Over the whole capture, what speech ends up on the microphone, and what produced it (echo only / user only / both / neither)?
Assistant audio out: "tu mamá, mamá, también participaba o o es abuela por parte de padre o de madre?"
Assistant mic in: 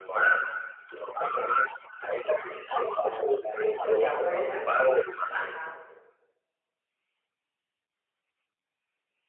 both